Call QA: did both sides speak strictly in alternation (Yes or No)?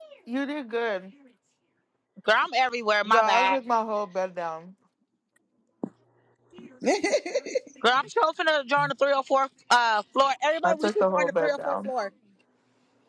No